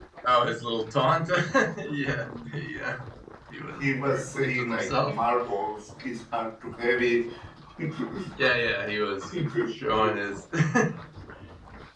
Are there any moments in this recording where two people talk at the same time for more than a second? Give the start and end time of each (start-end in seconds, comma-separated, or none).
3.8-5.1